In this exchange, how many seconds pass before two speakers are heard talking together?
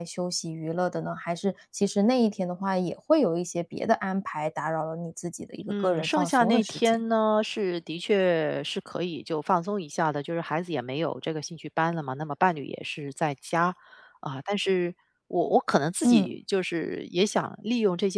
6 s

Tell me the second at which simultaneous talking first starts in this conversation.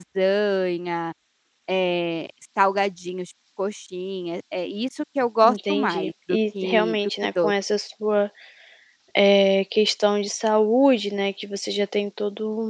5 s

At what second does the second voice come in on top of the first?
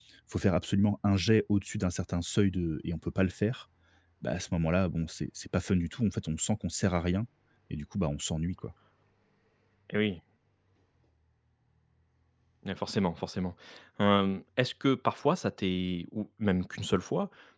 none

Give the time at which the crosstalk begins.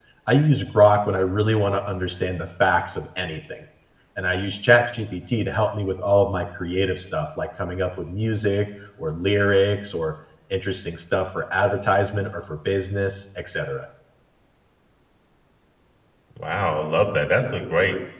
none

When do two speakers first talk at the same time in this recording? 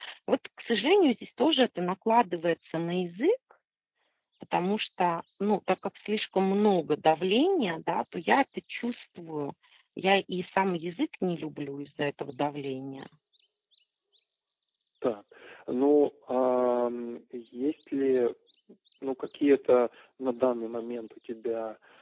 none

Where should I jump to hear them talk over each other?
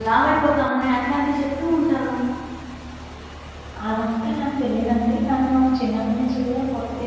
none

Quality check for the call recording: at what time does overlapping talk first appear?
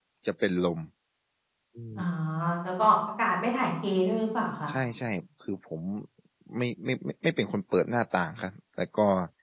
none

